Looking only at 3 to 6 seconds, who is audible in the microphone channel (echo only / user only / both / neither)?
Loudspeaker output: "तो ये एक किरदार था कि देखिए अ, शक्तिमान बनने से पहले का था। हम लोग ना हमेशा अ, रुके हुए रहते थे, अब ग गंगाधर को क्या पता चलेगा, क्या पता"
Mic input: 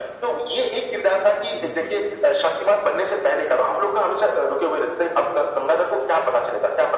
echo only